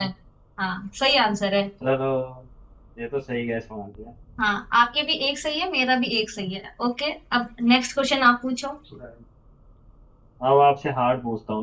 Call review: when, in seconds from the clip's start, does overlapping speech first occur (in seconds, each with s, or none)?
none